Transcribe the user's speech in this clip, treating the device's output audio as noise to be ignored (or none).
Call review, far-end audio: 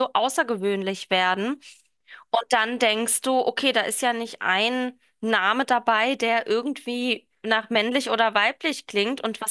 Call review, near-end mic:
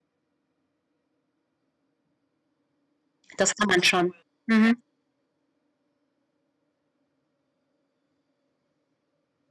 Das kann man schon. Mhm.